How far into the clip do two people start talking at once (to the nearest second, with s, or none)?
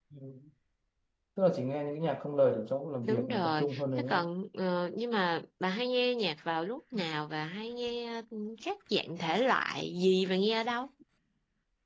3 s